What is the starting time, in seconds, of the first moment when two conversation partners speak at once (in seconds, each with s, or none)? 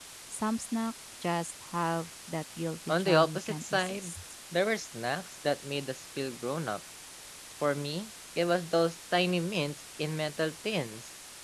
2.9 s